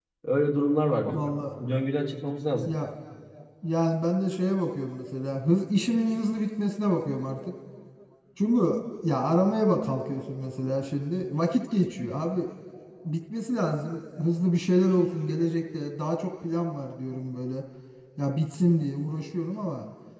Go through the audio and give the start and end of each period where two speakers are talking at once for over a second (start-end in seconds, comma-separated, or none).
none